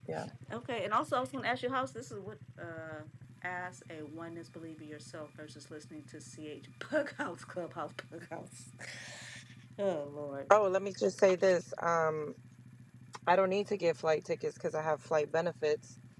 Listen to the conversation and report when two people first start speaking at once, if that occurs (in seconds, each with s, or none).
none